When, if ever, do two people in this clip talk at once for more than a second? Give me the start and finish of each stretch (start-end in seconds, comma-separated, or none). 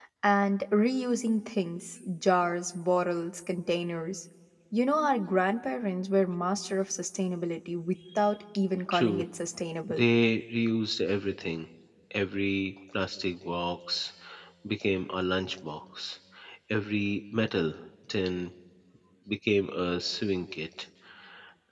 none